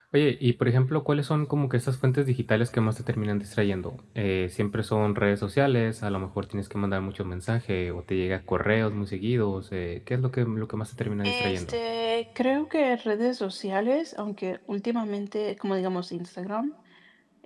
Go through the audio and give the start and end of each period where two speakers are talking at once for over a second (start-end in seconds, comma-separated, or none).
none